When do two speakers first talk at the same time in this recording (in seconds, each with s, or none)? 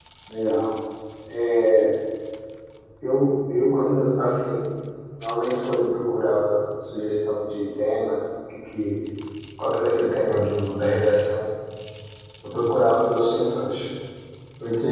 none